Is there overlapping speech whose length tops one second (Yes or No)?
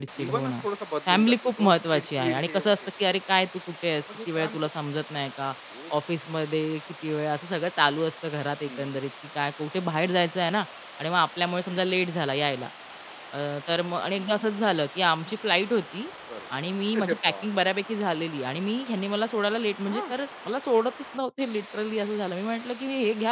Yes